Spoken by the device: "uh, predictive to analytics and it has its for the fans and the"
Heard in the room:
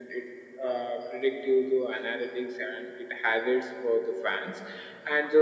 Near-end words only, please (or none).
none